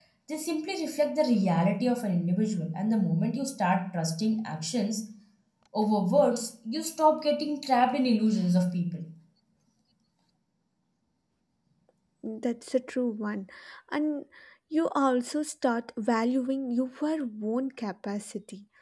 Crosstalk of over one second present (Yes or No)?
No